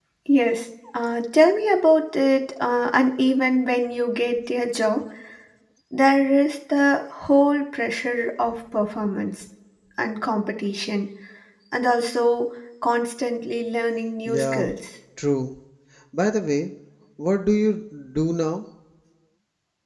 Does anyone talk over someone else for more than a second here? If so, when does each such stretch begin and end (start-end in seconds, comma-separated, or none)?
none